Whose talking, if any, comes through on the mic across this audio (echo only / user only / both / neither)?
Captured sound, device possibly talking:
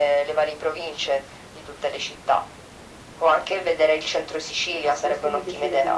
both